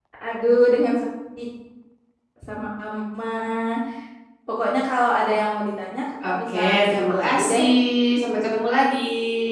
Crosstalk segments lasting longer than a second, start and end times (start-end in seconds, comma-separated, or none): 6.2-7.6